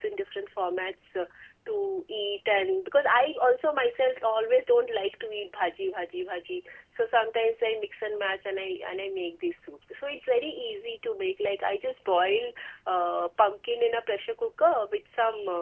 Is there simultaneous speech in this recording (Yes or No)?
No